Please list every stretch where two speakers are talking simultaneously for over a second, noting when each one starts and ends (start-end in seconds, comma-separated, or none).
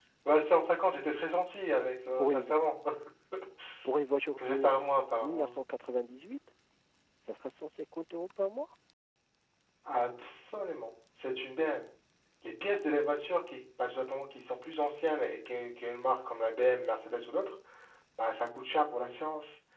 none